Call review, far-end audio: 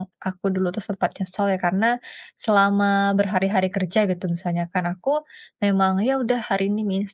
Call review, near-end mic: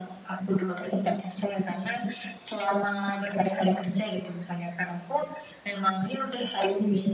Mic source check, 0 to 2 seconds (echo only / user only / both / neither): echo only